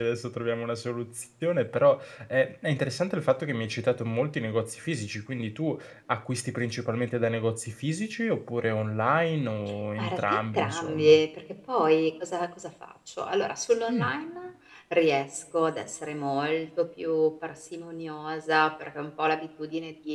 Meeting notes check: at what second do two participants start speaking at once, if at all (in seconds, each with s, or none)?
10.0 s